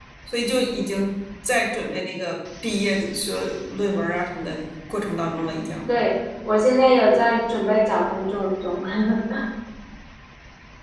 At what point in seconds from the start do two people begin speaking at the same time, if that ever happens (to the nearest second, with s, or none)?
none